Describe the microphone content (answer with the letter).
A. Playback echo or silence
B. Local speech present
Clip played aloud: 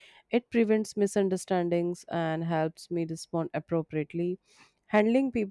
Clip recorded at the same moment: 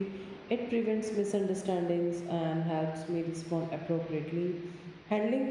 A